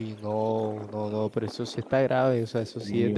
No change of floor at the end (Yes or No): No